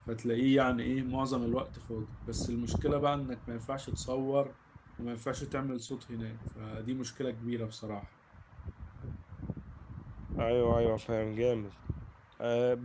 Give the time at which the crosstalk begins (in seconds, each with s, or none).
none